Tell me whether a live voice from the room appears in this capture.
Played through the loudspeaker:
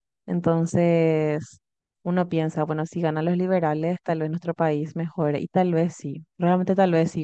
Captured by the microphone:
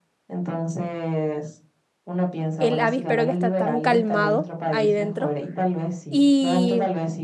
Yes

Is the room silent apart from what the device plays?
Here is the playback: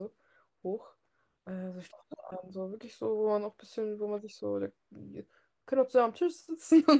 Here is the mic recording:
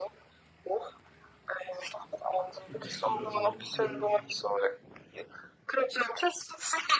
No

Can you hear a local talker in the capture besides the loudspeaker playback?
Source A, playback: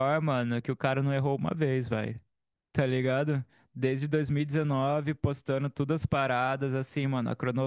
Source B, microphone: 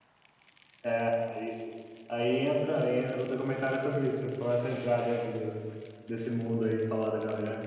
Yes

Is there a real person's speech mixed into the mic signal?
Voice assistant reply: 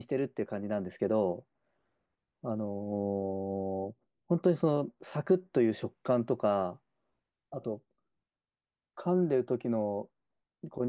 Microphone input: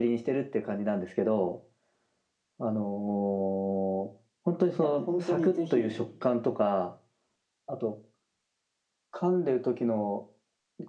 Yes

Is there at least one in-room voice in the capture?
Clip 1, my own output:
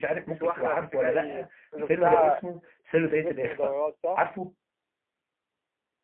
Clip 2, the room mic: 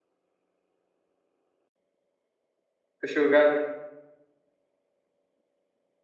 Yes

